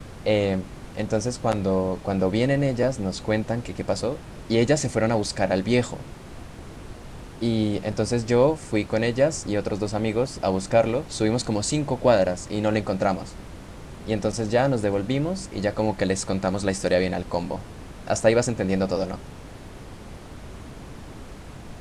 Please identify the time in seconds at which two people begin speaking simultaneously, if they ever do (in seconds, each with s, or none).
none